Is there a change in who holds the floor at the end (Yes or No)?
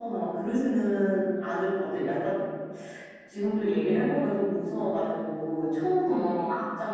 No